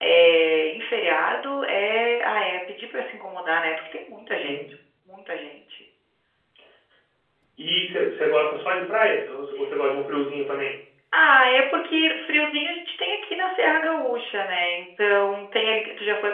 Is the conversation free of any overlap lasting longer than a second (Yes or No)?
Yes